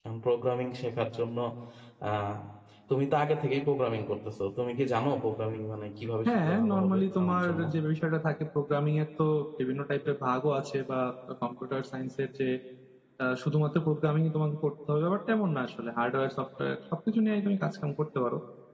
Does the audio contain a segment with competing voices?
Yes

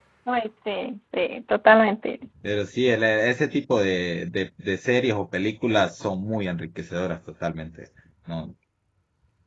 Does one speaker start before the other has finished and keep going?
No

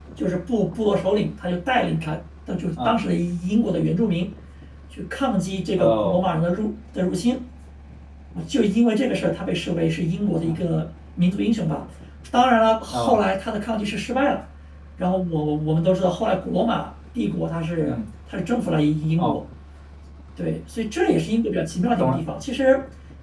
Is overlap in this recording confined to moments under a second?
Yes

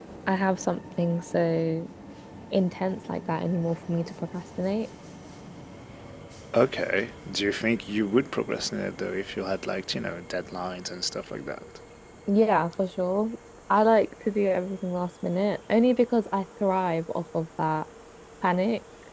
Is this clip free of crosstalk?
Yes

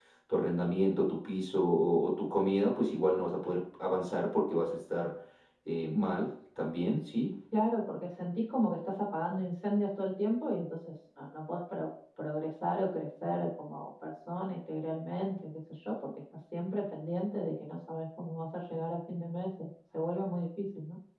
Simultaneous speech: No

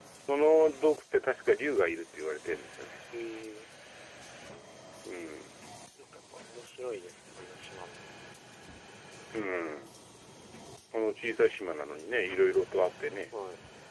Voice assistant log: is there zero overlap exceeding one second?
Yes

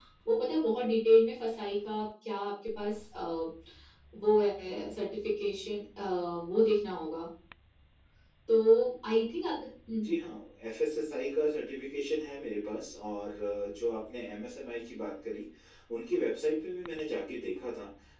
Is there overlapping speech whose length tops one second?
No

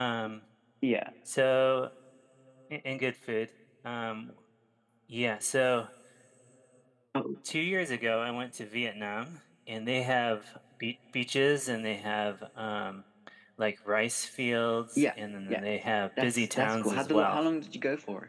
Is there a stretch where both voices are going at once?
Yes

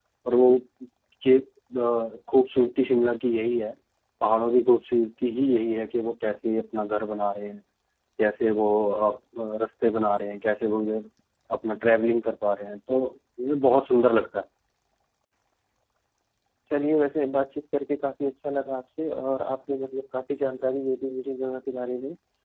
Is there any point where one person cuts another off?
No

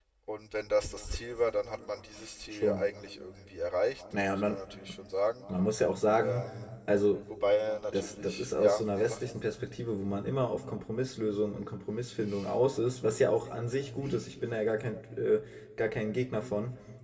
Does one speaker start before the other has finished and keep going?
Yes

